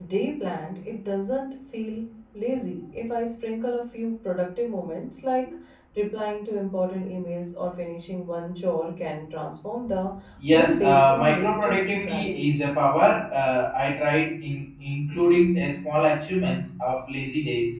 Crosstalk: present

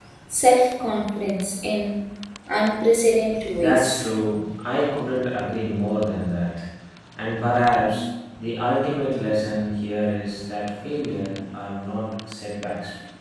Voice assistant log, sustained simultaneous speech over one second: none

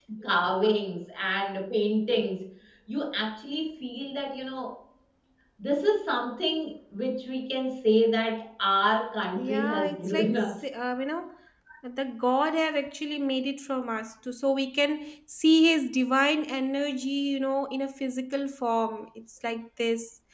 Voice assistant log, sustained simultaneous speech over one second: present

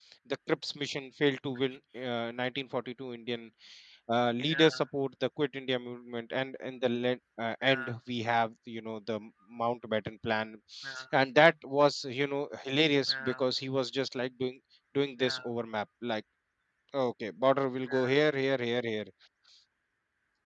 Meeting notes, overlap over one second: none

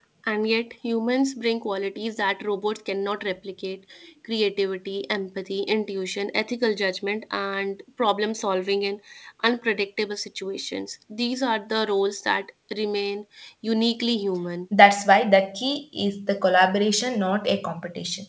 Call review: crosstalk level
none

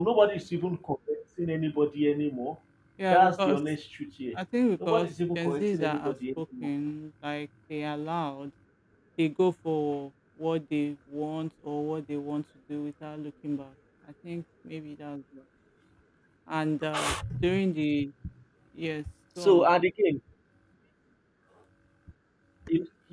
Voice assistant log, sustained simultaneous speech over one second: present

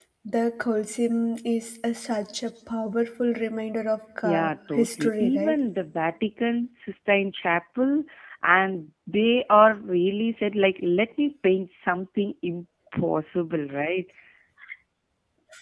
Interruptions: present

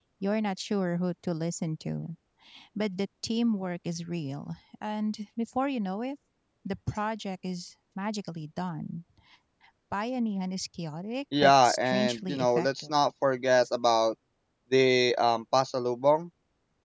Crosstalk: present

